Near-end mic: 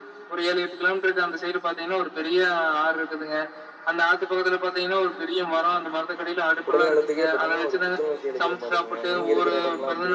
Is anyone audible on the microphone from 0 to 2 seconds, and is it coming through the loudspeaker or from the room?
echo only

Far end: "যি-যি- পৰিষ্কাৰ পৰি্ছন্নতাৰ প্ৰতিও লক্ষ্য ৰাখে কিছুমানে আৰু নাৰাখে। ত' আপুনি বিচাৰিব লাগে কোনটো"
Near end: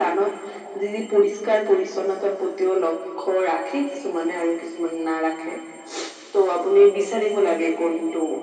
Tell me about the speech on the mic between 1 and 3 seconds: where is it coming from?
echo only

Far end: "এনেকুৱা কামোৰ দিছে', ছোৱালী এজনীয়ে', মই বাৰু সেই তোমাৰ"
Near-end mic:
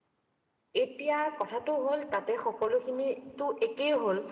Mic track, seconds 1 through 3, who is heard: user only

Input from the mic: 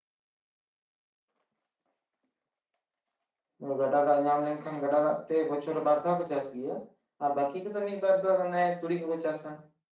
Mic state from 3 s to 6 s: user only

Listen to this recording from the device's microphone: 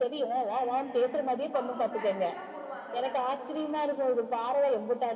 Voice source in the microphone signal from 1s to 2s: both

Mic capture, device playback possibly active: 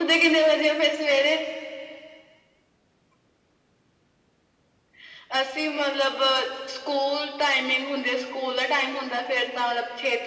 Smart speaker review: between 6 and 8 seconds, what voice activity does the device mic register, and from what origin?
echo only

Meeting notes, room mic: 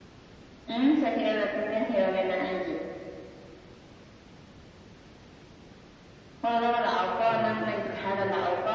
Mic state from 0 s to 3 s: echo only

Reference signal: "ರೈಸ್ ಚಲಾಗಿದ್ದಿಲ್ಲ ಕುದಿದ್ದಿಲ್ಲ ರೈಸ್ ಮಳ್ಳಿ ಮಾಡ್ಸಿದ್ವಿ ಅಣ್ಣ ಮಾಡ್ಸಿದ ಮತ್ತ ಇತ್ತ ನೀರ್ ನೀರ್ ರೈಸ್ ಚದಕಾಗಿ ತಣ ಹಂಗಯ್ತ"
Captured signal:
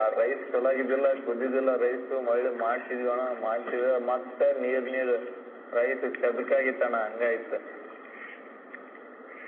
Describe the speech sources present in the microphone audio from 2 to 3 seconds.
echo only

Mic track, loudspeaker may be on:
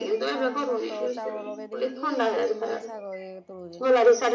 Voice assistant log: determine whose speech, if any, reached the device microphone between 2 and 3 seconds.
both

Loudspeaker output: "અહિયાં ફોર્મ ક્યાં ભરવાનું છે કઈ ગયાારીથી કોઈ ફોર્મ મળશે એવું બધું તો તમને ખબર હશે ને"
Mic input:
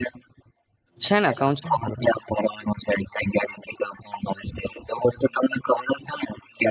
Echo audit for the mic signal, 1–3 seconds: both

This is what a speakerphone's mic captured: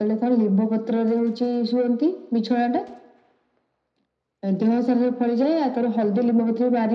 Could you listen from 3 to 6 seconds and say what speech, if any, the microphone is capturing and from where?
echo only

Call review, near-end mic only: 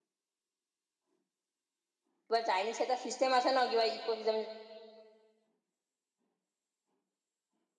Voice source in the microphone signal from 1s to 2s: neither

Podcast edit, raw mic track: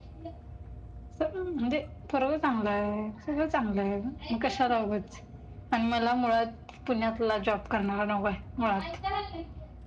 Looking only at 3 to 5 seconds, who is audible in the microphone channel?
echo only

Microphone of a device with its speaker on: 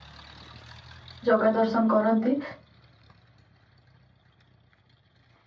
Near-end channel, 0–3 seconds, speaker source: user only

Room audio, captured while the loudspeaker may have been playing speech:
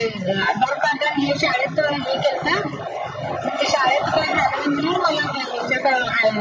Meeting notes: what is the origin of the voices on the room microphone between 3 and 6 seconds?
echo only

